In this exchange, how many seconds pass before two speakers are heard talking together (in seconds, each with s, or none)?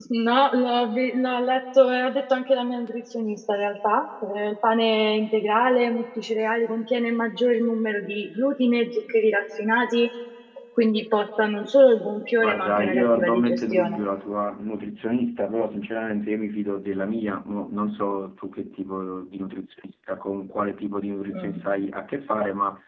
12.4 s